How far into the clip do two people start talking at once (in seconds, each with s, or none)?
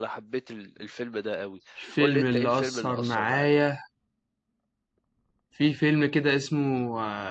1.8 s